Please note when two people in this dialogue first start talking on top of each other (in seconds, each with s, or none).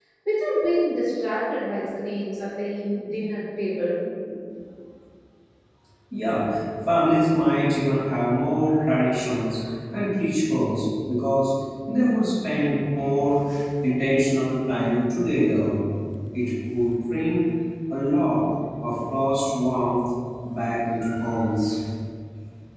none